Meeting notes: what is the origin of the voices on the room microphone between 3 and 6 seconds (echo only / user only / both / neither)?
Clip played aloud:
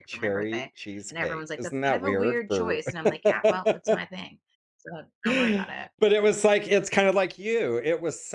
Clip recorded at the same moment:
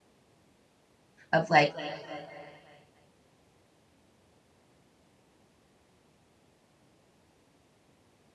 neither